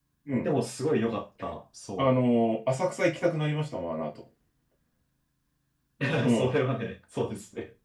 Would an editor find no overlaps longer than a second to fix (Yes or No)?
Yes